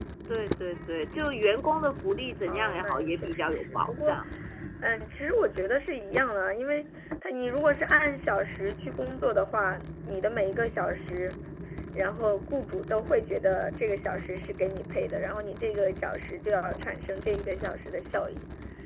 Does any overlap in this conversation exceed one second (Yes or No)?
Yes